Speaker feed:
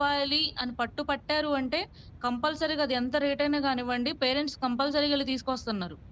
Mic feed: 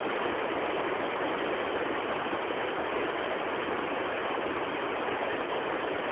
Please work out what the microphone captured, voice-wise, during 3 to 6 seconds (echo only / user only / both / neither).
neither